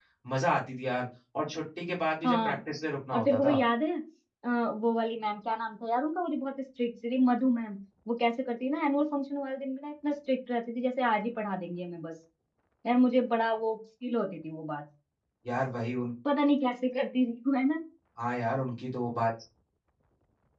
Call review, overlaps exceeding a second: none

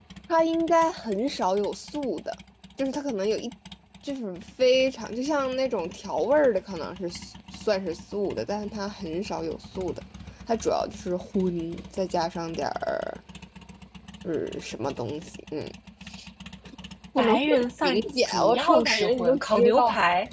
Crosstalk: present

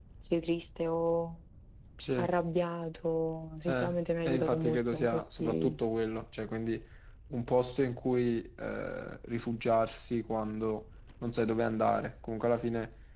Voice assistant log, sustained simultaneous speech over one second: present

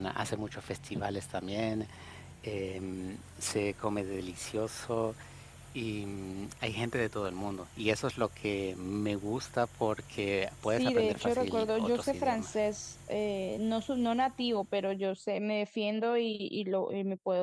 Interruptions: present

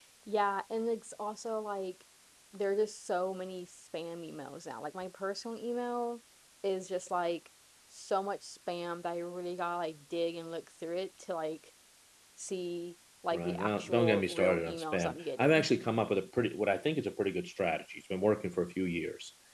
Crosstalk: present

